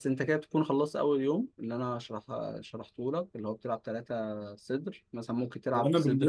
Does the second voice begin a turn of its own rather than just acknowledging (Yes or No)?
Yes